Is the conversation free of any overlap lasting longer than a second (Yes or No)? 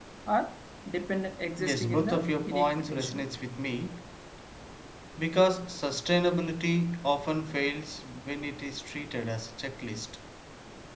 No